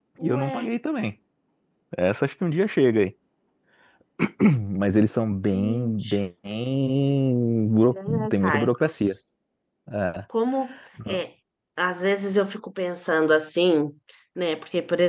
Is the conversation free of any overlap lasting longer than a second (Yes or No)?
No